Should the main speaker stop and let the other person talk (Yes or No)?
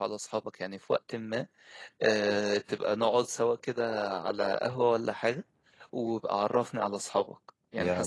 Yes